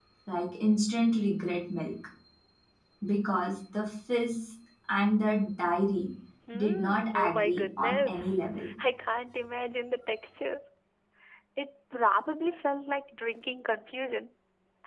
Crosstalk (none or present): present